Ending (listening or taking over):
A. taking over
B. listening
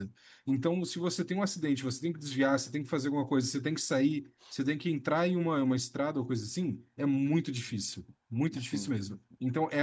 B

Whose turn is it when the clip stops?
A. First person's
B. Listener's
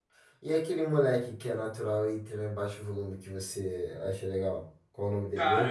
B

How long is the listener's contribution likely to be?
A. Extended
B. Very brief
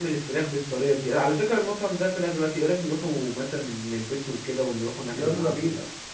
A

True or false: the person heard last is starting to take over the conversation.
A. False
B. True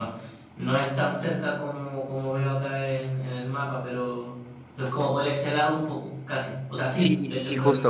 B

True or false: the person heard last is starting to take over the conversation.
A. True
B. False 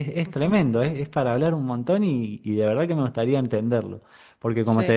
B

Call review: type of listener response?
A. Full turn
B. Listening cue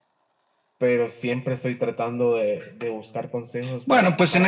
A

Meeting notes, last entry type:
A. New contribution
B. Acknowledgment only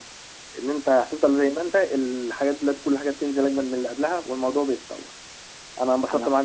B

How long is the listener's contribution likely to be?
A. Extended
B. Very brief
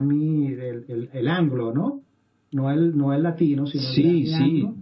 A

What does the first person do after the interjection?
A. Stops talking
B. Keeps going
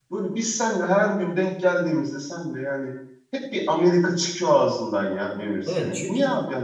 A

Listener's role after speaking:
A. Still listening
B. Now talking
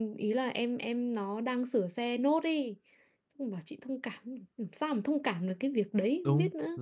B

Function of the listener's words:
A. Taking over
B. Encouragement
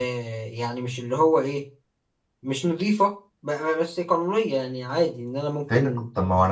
A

